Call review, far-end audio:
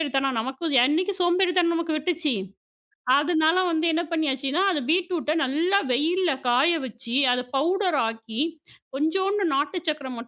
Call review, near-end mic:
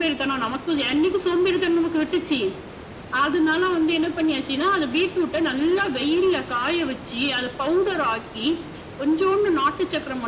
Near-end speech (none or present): none